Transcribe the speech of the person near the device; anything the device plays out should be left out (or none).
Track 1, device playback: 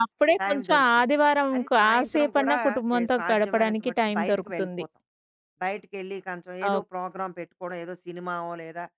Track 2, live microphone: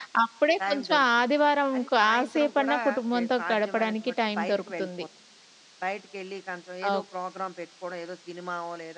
none